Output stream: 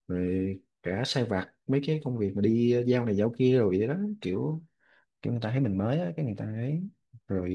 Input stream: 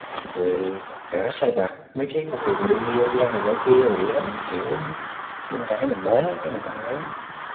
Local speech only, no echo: none

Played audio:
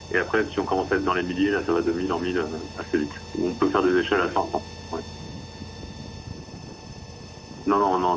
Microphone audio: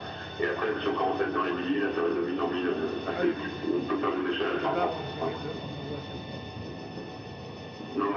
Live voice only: Ah oui, ok, donc tu veux pas renchérir de un euro à chaque fois, quoi.

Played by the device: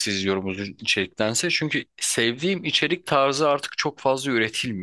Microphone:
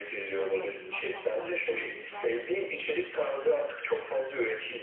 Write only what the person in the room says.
Benim açımdan tam tersi yani. Ben

